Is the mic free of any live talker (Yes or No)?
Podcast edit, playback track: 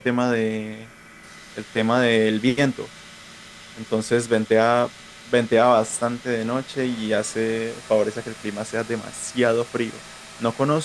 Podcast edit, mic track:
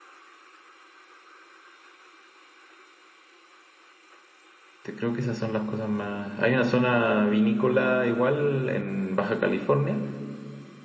No